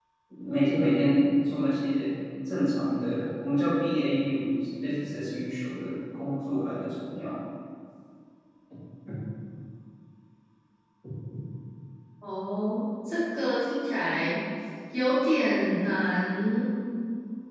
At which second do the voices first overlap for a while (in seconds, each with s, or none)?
none